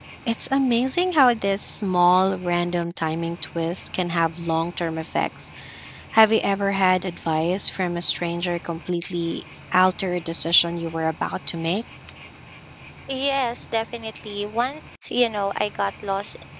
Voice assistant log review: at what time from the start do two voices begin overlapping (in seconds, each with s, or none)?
none